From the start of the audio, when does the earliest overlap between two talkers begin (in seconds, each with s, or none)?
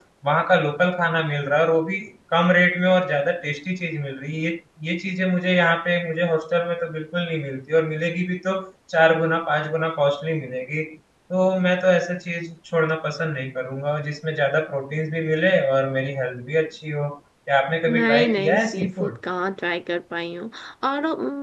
17.9 s